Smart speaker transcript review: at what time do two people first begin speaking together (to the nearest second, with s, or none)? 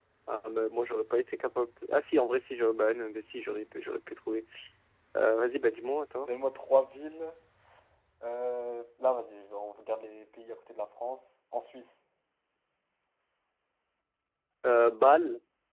none